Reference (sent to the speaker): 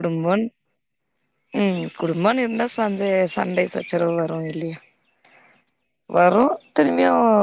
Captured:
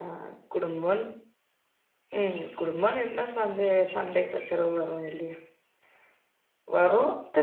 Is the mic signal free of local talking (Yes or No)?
Yes